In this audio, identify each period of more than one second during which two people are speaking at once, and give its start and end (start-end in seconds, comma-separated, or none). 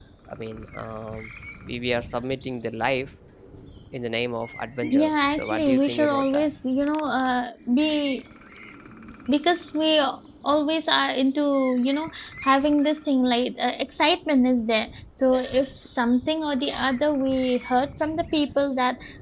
4.8-6.5